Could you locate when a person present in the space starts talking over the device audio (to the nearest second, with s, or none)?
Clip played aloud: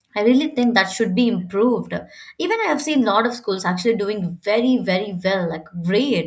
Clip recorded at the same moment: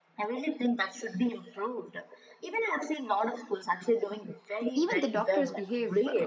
5 s